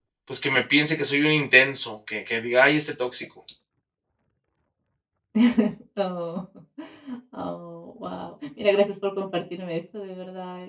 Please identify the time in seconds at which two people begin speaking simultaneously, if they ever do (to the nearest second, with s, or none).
none